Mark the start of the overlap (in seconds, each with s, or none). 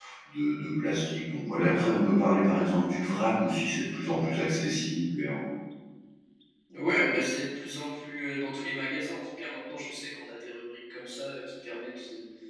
none